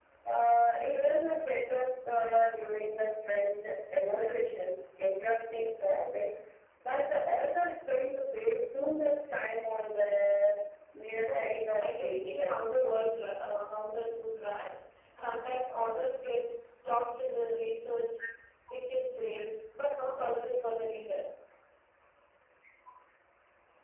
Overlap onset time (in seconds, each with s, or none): 11.3 s